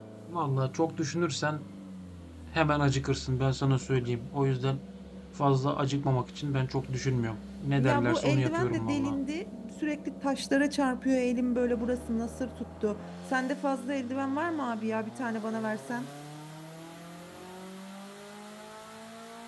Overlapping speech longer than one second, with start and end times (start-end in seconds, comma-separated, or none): 7.8-9.2